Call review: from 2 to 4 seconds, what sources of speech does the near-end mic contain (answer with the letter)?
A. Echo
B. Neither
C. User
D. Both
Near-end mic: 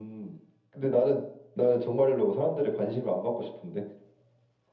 A